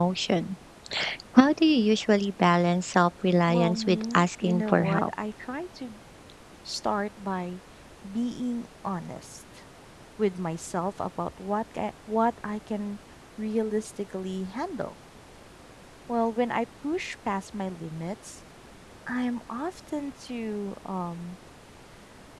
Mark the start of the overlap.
3.5 s

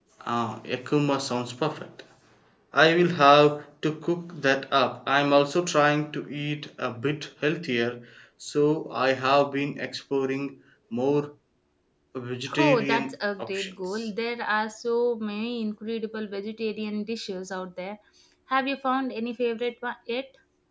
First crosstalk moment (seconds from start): 12.6 s

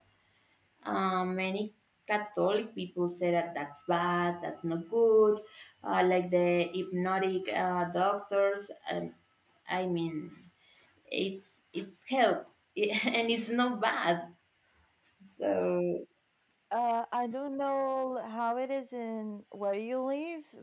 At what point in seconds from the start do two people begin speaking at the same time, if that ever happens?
none

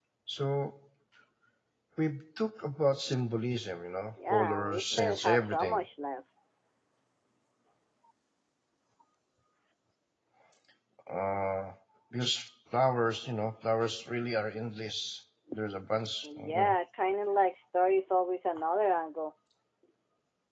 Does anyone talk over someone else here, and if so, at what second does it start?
4.3 s

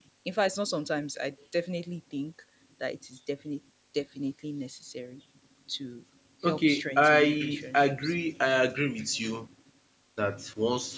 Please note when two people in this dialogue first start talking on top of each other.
6.4 s

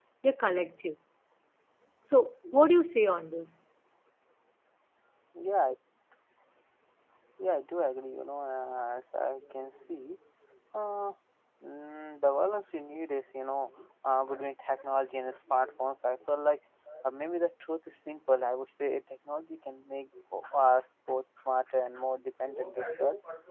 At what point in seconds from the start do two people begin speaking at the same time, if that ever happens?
none

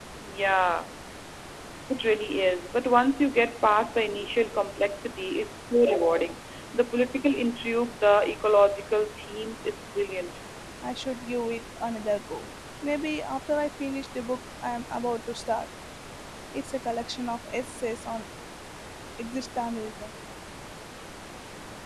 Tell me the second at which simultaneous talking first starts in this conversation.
none

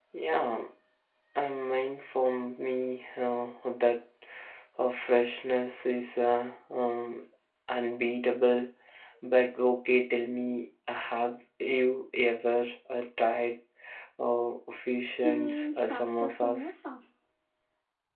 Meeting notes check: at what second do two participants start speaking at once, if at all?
15.2 s

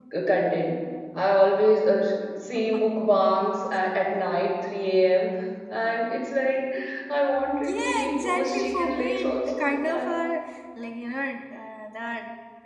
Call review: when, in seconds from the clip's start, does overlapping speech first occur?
7.6 s

